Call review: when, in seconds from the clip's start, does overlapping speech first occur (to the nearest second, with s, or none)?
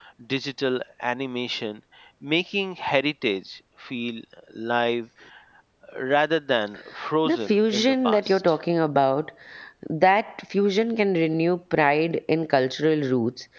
7 s